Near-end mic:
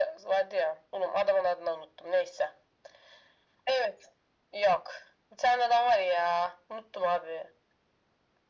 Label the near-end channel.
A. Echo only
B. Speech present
A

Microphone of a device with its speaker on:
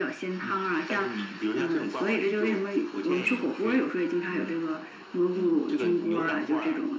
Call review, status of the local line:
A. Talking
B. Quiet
B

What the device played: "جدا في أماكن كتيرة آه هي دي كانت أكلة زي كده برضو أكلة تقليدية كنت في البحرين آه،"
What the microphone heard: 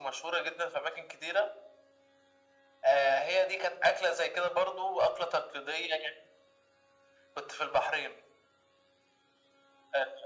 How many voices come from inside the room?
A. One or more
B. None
B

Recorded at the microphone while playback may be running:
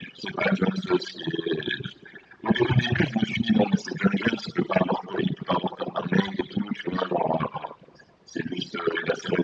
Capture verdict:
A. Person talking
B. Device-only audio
B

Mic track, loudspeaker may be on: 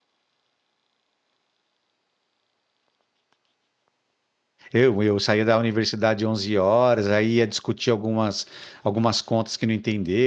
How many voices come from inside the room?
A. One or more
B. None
A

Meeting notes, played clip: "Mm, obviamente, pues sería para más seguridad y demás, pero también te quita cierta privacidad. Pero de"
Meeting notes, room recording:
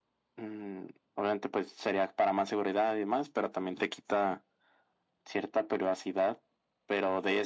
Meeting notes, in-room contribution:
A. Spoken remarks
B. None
B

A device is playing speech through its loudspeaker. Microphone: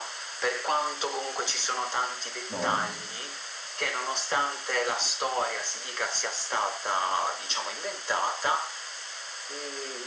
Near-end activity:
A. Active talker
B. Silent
A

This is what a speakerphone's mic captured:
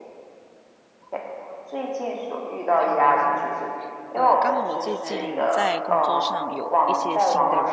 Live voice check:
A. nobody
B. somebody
B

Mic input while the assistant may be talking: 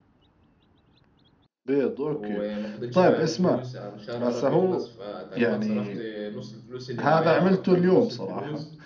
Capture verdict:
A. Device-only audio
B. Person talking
B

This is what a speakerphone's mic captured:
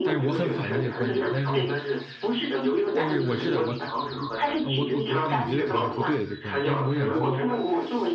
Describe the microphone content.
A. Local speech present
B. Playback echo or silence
A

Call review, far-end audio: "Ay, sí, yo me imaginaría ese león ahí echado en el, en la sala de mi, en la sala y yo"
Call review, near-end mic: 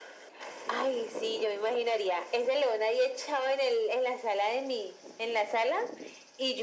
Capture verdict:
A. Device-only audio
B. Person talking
A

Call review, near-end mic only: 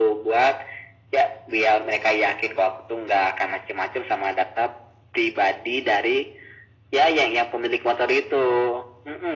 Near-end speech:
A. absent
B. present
A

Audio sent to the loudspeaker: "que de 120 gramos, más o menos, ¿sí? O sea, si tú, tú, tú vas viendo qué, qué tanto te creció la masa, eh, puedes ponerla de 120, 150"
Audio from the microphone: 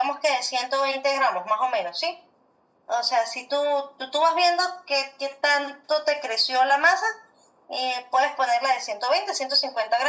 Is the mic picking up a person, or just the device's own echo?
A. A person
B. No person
B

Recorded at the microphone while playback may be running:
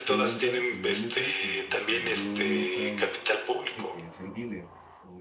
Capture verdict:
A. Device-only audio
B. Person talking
B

